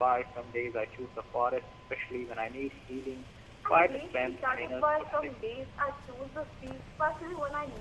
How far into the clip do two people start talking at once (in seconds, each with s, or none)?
3.7 s